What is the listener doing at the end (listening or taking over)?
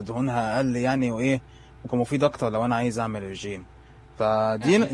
taking over